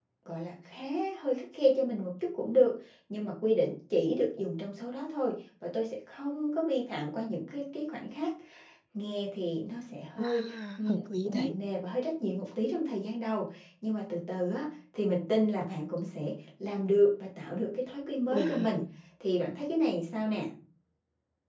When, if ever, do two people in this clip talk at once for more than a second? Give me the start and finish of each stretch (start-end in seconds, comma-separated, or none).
10.2-11.6